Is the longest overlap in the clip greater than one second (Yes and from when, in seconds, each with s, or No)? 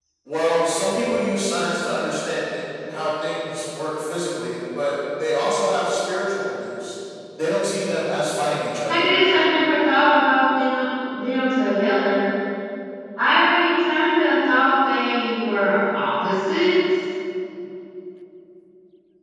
No